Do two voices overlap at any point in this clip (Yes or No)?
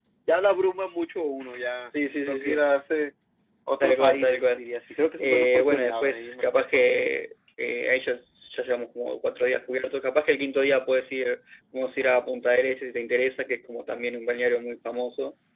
Yes